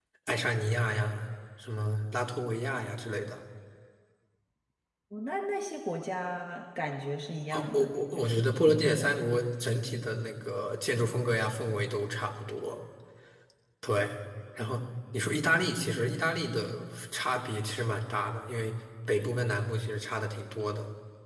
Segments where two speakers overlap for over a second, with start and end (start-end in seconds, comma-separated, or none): 7.5-9.2